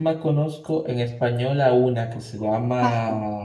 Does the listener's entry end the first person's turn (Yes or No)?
No